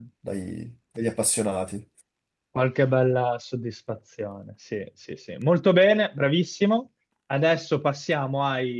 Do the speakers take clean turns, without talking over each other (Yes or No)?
Yes